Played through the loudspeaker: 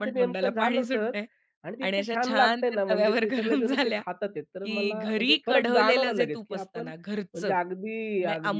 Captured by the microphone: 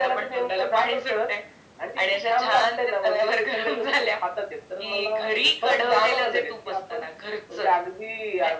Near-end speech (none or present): none